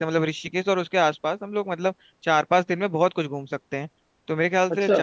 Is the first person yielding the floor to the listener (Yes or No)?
No